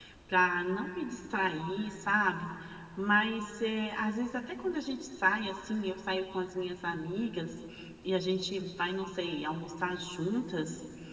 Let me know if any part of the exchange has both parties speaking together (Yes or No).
No